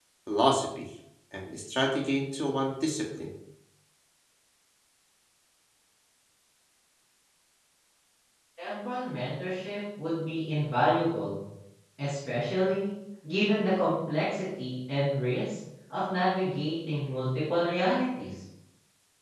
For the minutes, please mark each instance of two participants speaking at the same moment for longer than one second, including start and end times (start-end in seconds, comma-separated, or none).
none